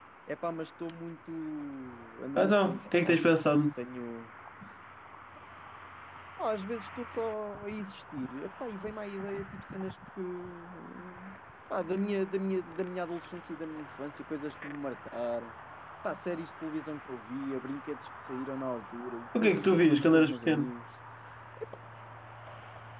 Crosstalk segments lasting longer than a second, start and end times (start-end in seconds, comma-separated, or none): 2.4-3.6, 19.4-20.6